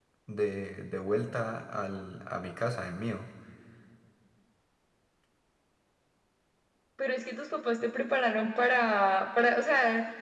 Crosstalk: none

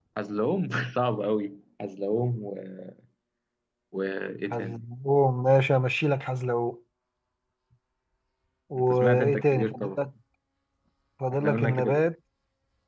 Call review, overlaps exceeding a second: present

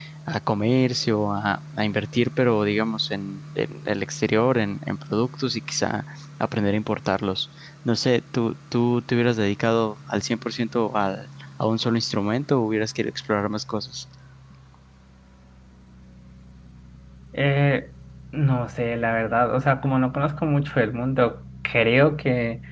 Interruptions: none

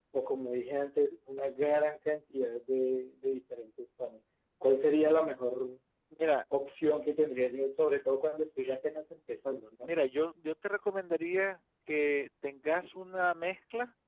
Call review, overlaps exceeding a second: none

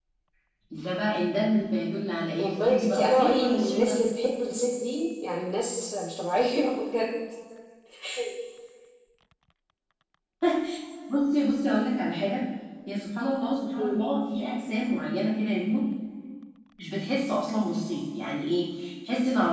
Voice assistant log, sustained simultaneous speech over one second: present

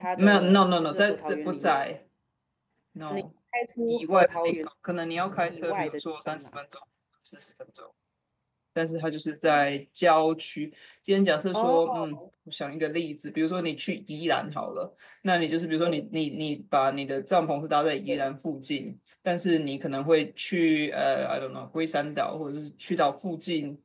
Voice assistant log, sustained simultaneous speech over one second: present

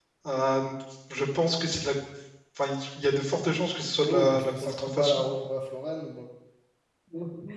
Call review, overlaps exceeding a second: present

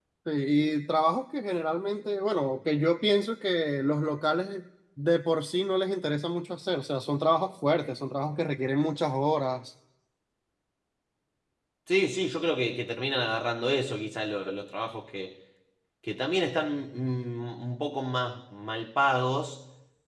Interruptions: none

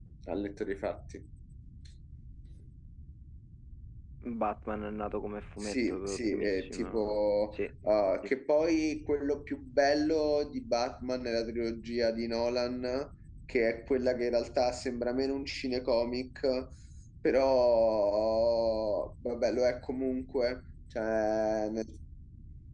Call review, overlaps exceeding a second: present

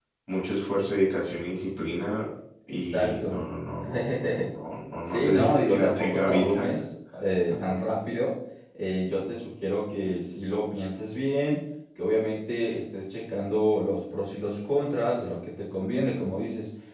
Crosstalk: present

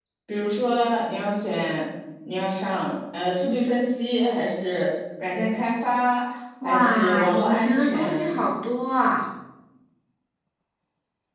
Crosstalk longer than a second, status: present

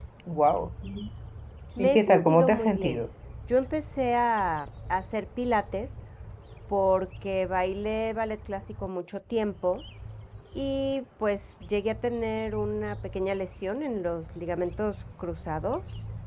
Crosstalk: present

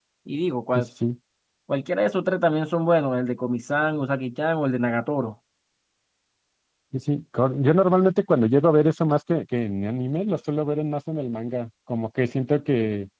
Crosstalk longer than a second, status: none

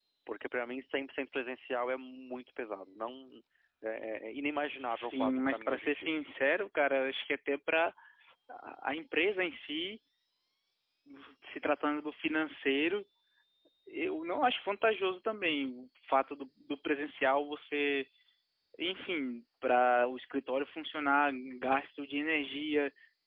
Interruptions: present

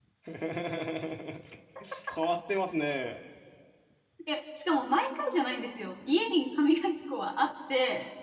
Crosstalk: none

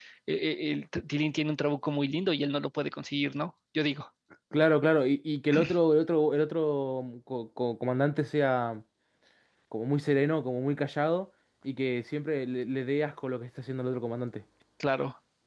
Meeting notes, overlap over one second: none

